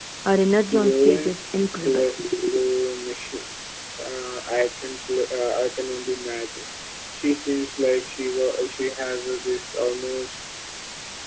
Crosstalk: present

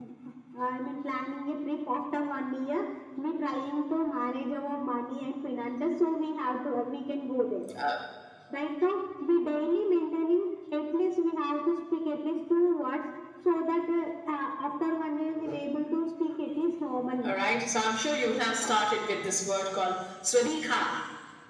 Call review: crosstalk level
none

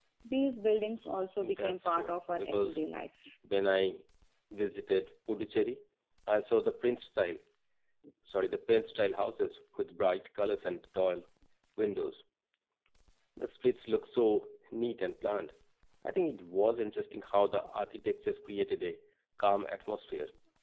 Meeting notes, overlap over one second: present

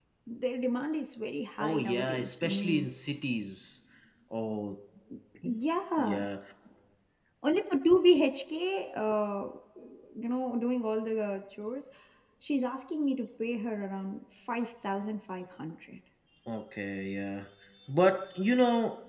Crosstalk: present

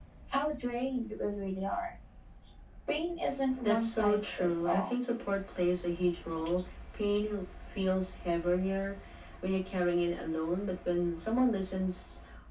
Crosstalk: present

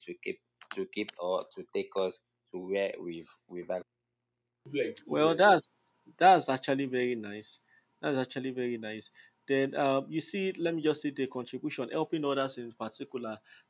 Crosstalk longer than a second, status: none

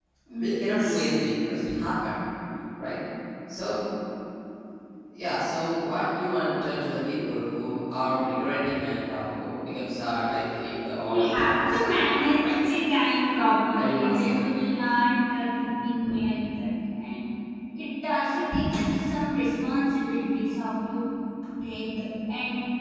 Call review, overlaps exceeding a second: present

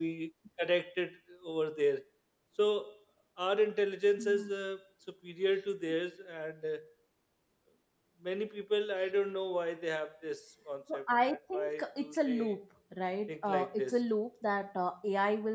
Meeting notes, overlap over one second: present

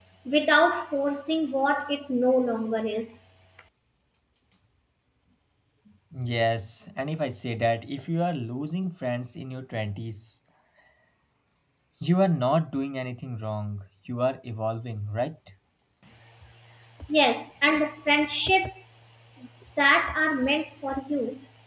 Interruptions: none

